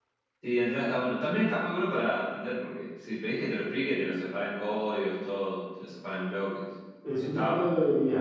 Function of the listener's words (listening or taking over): taking over